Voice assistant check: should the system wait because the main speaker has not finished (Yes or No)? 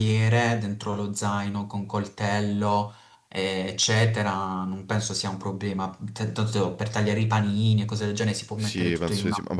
No